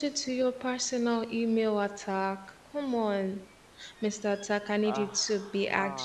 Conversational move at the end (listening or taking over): listening